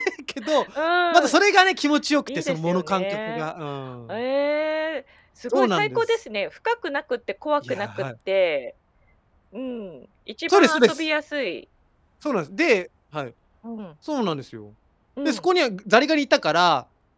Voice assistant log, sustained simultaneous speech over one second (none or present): present